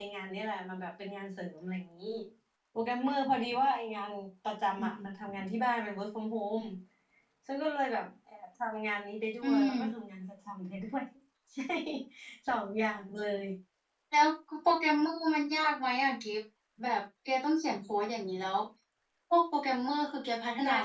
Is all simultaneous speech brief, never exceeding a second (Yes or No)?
Yes